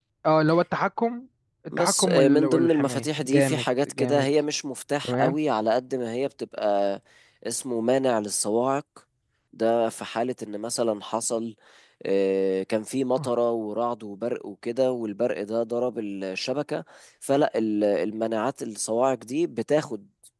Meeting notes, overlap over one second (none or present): present